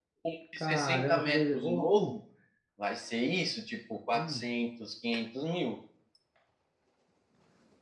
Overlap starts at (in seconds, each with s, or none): 0.6 s